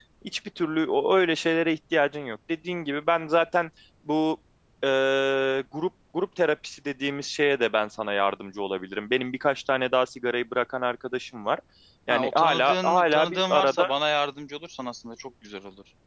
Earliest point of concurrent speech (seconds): 12.1 s

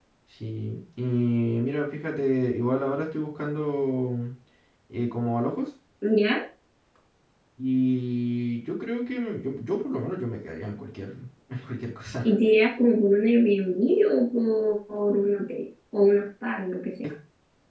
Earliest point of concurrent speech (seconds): none

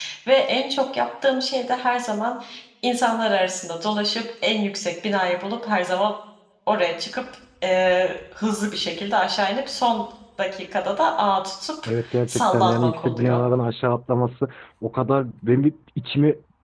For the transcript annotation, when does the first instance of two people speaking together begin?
11.8 s

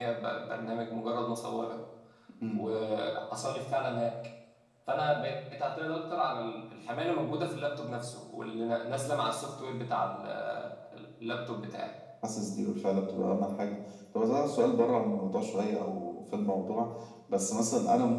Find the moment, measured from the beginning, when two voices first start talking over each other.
none

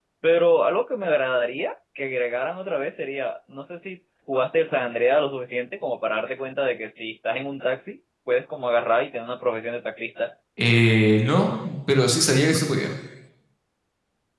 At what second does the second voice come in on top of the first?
none

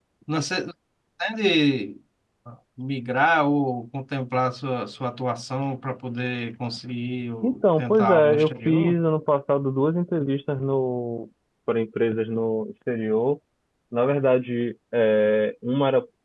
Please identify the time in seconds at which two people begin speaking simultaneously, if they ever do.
7.4 s

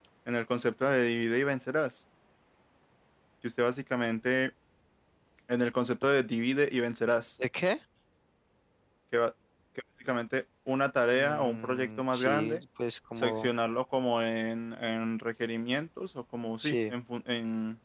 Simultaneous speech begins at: 11.1 s

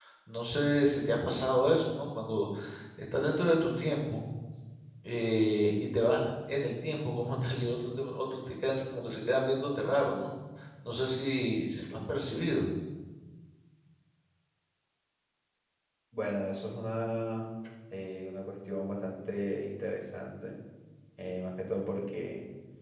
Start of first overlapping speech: none

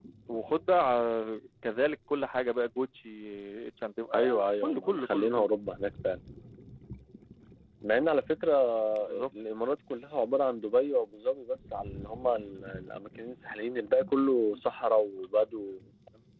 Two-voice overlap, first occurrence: 4.1 s

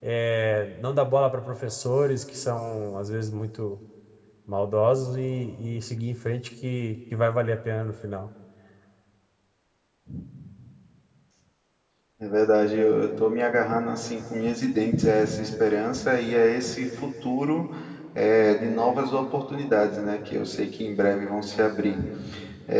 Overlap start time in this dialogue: none

